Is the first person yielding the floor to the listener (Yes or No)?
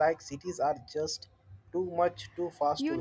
Yes